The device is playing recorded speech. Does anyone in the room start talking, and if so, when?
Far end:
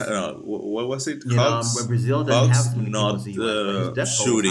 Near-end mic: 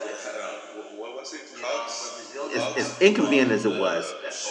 2.5 s

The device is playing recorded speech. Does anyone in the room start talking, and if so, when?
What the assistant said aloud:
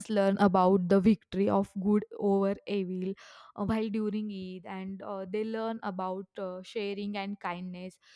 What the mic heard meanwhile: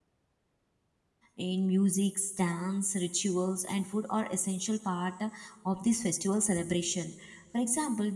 1.4 s

